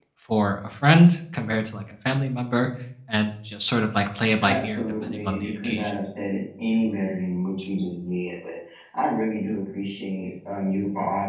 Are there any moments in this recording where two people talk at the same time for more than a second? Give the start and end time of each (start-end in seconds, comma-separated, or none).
4.4-5.9